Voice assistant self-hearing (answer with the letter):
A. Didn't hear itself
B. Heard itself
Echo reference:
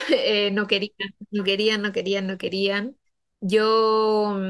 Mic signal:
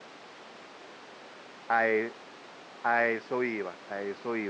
A